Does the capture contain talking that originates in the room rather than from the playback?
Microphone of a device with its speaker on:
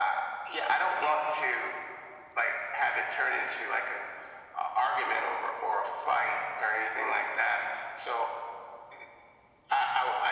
No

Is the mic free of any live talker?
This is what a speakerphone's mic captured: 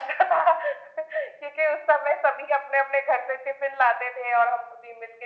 Yes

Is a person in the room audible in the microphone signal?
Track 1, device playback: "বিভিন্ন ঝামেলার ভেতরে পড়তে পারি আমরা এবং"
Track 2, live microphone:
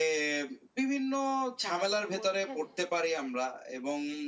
Yes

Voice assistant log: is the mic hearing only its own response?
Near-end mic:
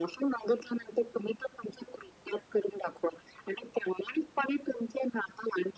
Yes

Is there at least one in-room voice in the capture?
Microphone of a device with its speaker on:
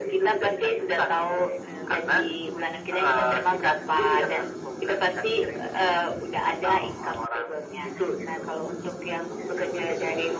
No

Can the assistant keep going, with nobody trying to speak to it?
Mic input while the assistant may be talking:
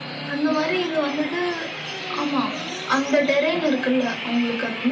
Yes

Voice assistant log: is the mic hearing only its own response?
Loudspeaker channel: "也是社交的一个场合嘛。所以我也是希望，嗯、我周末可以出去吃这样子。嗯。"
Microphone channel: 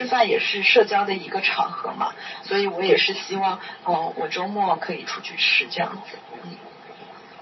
Yes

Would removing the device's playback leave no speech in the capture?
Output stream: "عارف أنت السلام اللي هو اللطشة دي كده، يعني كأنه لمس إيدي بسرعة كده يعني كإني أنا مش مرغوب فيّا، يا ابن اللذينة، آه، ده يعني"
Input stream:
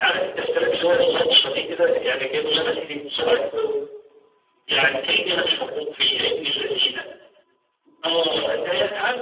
Yes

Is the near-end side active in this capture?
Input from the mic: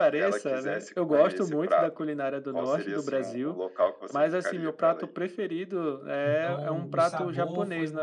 Yes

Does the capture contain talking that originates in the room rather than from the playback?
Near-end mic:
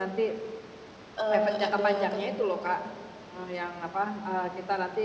Yes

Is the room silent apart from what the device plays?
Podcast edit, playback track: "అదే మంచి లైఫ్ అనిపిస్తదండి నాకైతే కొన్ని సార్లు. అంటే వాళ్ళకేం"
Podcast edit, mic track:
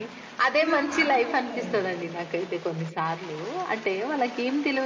No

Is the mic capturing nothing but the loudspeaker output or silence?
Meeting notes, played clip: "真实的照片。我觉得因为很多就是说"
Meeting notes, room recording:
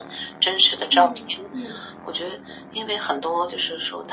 No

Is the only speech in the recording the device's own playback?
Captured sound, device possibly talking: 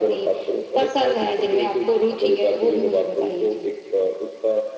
Yes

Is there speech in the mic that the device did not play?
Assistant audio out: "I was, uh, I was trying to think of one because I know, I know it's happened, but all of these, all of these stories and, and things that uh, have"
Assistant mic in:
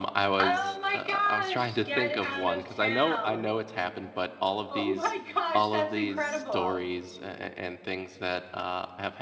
Yes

